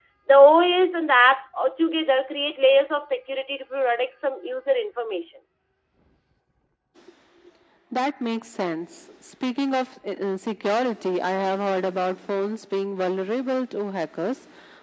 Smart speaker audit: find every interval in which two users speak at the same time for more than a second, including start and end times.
none

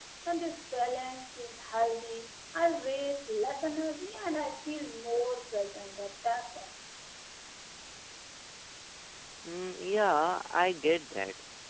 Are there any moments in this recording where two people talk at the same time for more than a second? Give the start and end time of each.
none

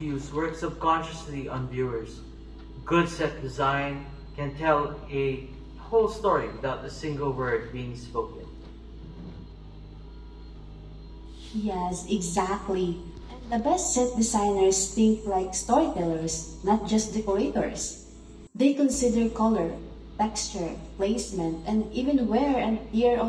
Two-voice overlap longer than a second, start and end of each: none

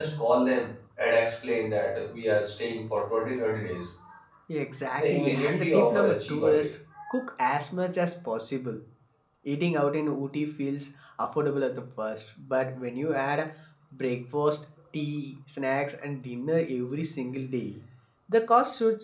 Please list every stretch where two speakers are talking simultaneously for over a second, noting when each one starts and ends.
5.0-6.7

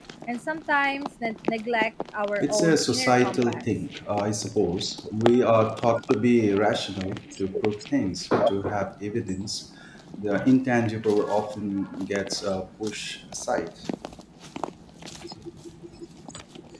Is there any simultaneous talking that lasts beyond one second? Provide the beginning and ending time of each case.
2.4-3.6

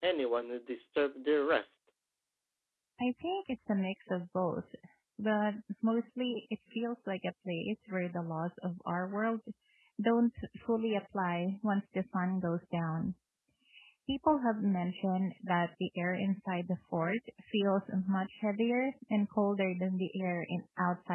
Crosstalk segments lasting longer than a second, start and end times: none

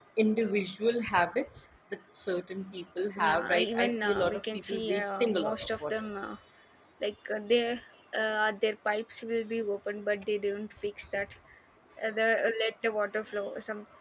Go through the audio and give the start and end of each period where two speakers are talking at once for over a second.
3.2-5.9

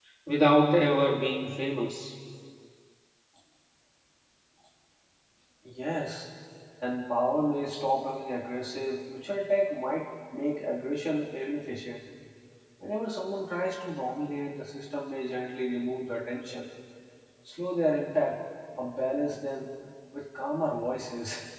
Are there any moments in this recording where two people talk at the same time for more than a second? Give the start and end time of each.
none

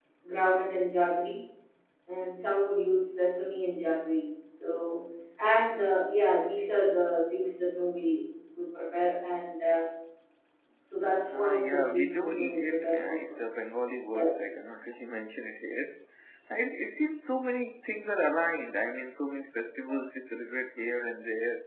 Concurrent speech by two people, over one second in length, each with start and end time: 11.3-13.4

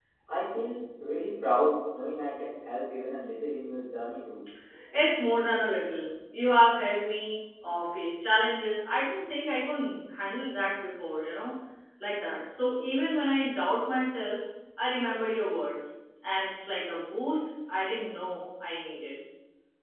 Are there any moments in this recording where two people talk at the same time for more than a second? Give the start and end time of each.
none

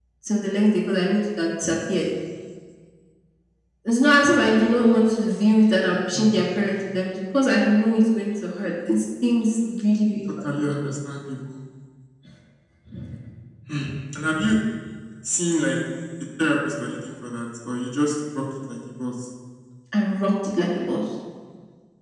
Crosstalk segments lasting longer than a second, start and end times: none

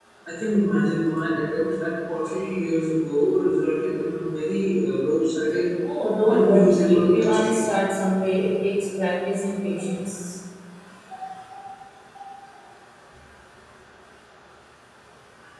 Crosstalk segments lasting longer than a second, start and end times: 6.3-7.6

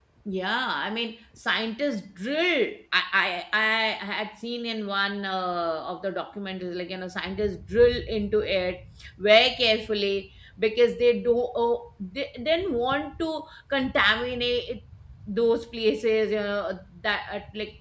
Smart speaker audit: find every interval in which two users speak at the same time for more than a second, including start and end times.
none

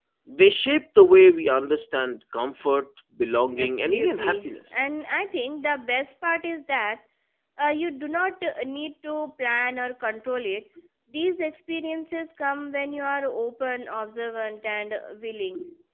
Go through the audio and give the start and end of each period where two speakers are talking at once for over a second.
3.6-4.9

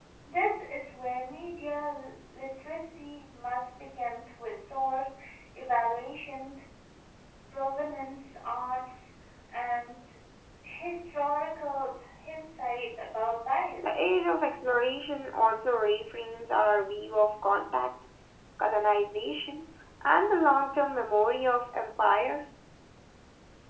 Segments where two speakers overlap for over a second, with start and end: none

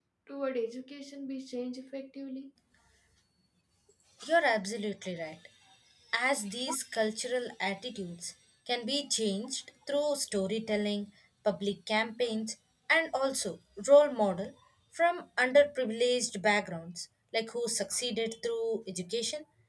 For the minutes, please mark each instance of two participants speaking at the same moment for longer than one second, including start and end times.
none

